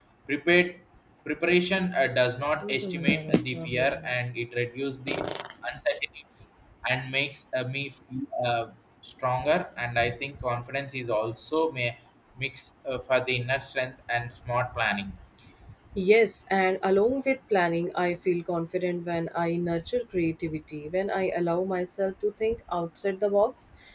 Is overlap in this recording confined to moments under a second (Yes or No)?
No